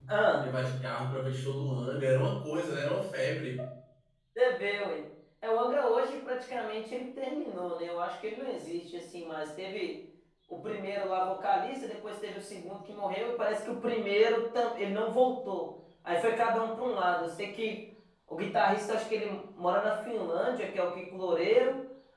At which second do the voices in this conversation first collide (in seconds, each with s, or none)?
none